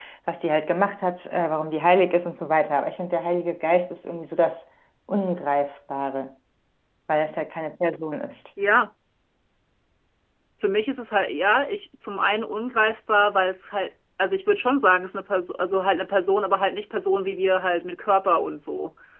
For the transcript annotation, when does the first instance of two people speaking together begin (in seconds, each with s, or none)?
none